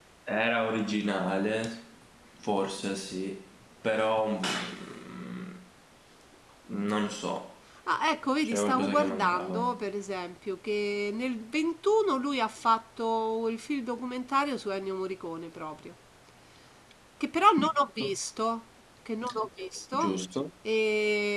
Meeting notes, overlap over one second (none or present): present